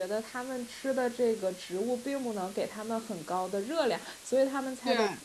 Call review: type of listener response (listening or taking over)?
listening